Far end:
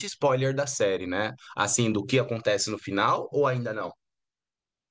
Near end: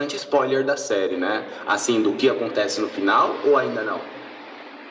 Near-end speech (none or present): none